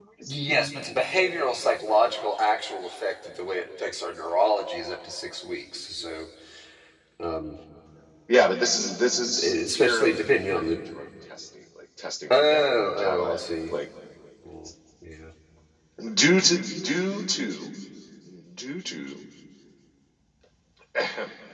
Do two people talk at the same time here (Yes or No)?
Yes